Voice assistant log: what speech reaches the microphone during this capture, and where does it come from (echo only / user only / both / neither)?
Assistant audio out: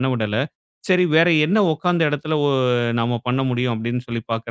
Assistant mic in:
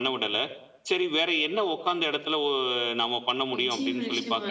both